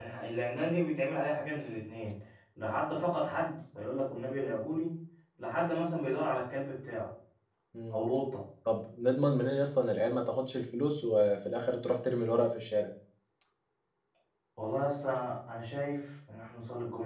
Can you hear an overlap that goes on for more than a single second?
No

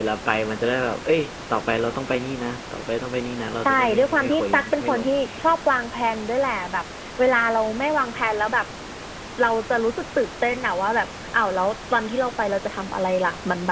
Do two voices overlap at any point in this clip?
Yes, from 3.6 s

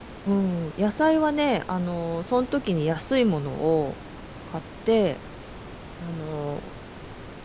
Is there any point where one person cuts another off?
No

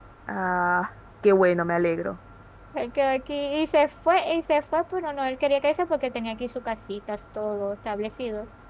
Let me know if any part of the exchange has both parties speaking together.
No

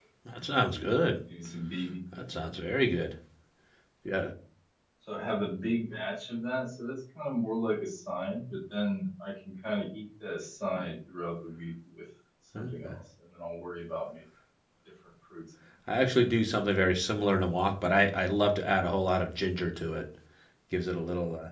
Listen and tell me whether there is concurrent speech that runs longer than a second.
No

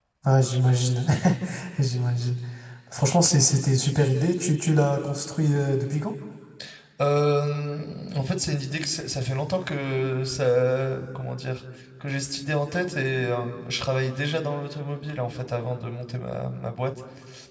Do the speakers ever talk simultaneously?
No

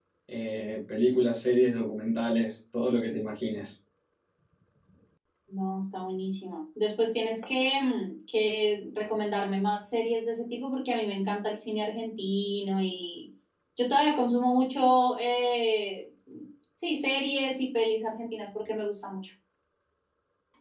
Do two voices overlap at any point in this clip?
No

